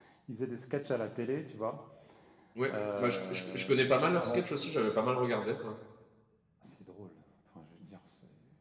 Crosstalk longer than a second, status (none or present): present